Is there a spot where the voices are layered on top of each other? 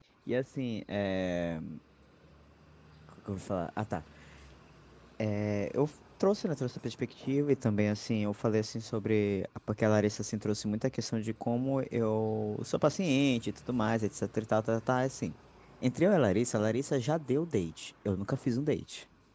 No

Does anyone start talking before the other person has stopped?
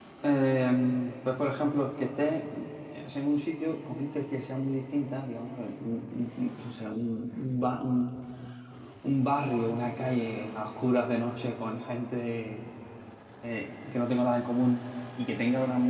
No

